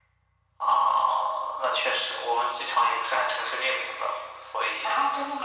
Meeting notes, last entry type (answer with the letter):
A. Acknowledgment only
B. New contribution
B